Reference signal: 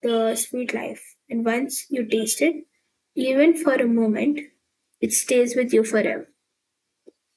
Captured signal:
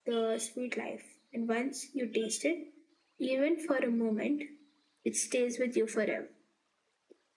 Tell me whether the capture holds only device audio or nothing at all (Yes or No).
Yes